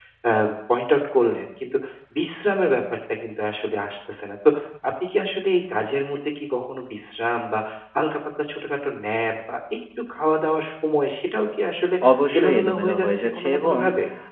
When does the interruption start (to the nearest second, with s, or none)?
12 s